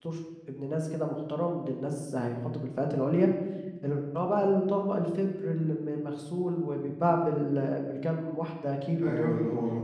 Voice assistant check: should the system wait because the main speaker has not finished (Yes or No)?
No